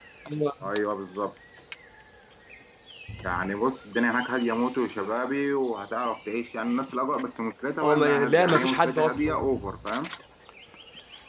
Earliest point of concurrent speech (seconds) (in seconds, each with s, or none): 7.8 s